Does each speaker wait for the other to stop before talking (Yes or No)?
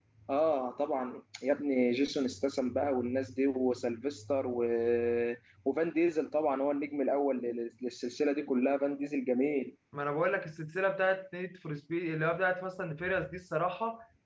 Yes